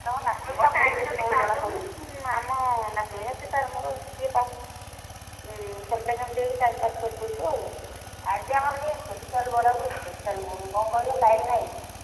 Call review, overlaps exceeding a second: present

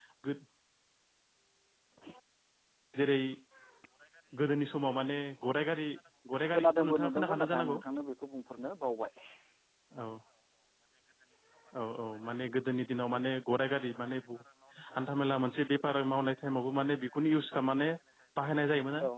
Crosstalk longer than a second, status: present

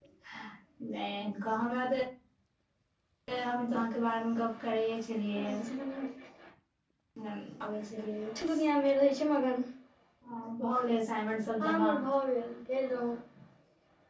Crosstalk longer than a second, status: none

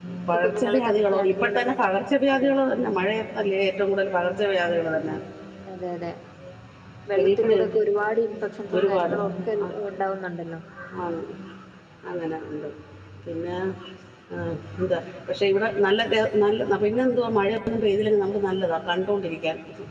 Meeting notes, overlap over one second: present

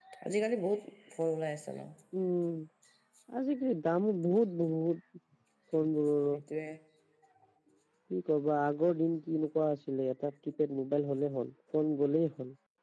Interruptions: none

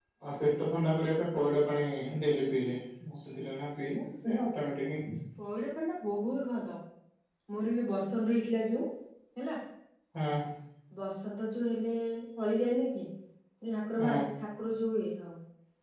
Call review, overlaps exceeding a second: none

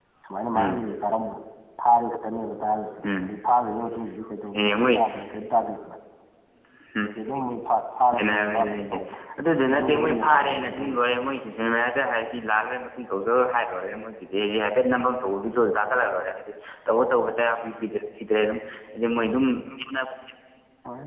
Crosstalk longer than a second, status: present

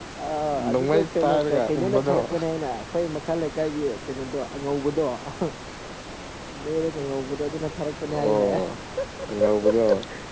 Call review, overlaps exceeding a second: present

